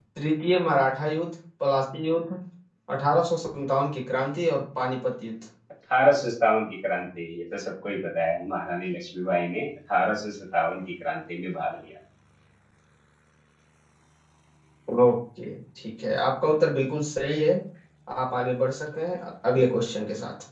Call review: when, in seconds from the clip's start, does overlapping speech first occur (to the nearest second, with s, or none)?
none